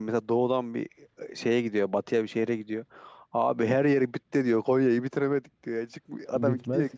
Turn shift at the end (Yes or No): No